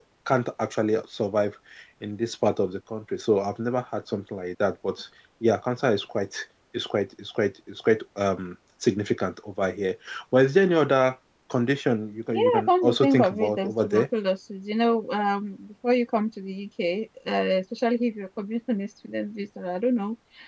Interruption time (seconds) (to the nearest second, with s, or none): 12 s